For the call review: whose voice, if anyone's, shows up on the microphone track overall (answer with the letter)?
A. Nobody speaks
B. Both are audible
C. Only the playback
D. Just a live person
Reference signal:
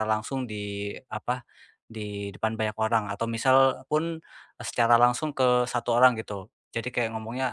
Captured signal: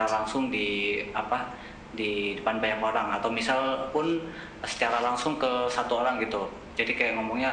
C